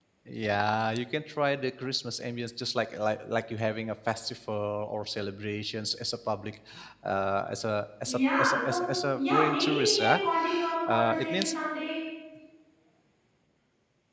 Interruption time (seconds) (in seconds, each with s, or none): 8.1 s